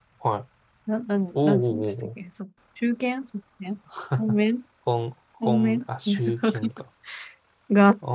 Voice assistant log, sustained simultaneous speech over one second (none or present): present